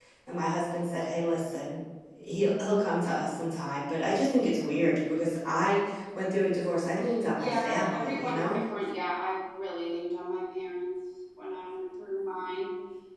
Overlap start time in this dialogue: 7.4 s

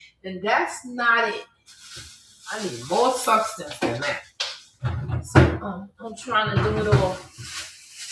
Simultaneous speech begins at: none

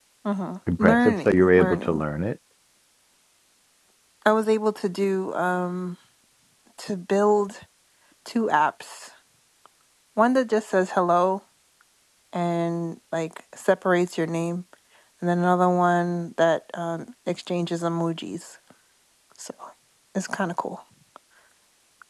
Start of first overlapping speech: 0.8 s

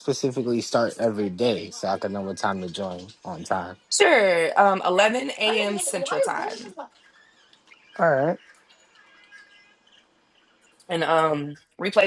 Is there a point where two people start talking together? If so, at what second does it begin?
5.5 s

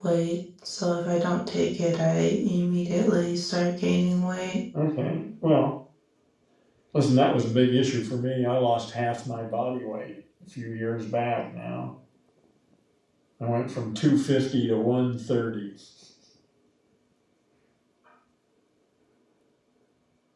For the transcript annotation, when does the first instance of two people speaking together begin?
none

